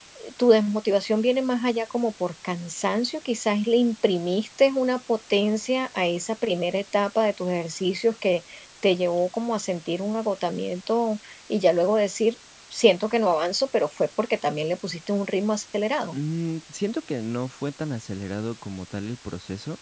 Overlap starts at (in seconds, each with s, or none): none